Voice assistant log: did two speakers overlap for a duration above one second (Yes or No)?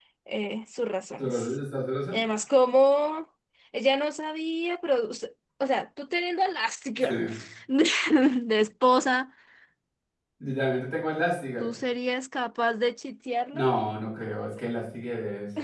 No